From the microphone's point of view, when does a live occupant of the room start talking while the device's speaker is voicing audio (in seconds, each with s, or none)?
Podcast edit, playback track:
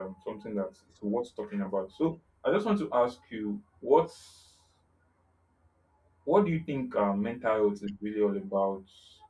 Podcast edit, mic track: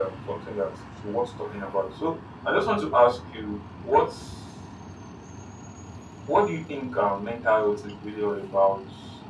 none